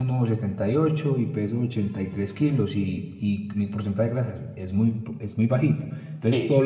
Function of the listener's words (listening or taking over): taking over